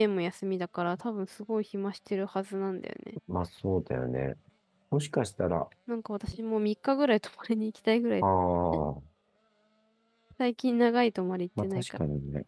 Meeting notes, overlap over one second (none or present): none